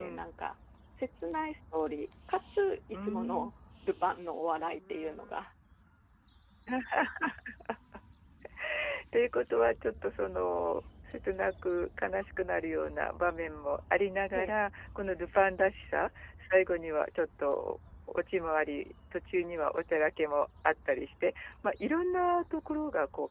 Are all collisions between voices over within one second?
Yes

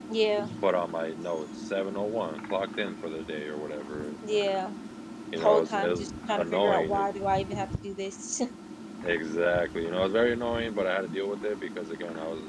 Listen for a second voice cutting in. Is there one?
Yes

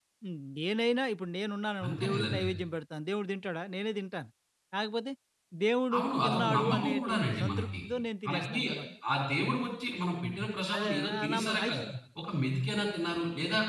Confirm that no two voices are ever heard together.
No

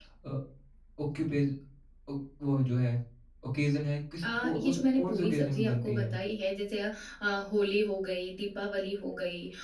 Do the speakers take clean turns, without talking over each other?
No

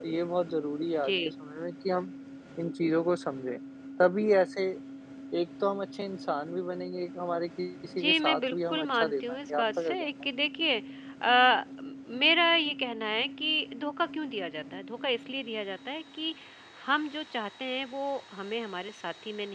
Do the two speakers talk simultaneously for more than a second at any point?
Yes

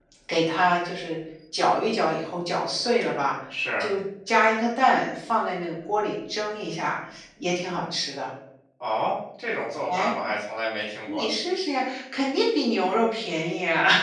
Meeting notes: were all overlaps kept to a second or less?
Yes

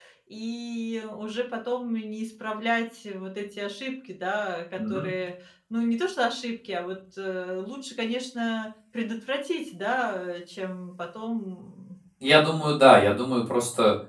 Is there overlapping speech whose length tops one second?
No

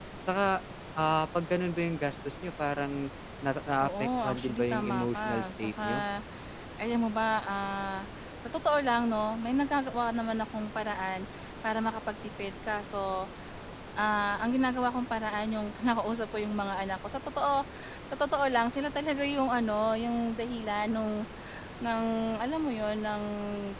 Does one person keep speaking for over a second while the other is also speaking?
Yes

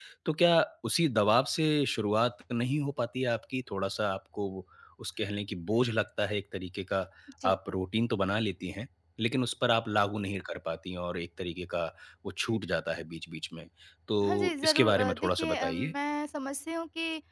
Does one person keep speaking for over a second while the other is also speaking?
Yes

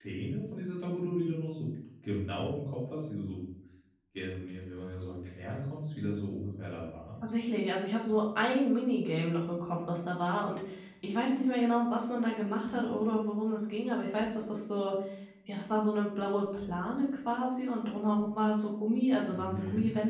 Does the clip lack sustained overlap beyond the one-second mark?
Yes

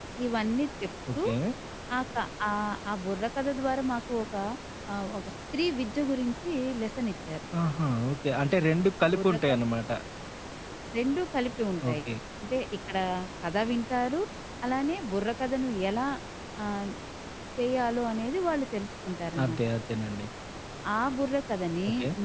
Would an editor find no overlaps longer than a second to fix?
Yes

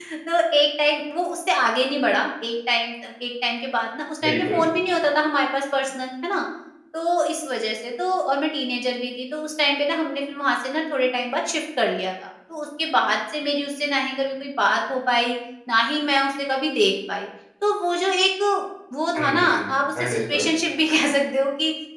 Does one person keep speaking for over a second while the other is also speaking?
Yes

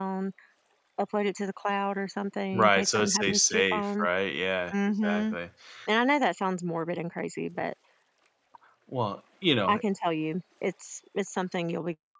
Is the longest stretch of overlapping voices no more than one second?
No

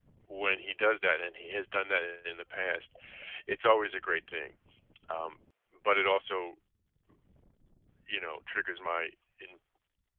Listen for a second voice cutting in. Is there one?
No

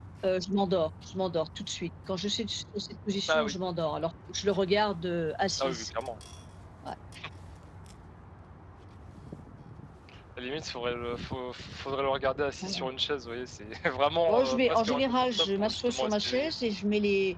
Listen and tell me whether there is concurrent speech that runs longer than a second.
Yes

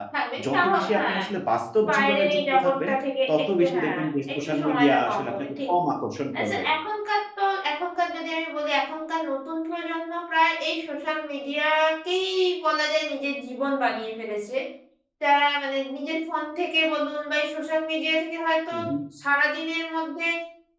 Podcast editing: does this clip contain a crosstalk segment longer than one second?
Yes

